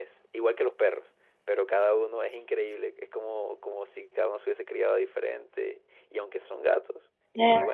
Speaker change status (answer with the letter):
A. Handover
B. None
B